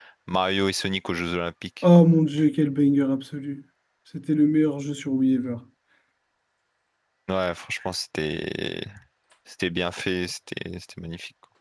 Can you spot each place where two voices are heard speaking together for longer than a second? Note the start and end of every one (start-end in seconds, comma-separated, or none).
none